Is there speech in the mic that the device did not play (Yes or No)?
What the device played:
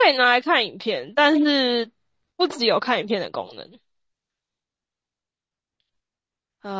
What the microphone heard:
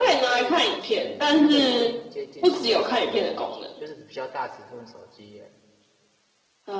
Yes